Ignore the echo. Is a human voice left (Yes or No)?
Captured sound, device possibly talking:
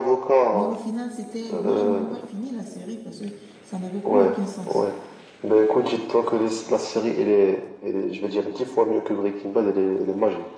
Yes